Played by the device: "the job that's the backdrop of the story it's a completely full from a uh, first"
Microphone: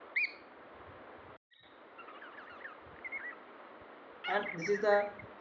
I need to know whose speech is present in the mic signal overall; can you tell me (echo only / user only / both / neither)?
user only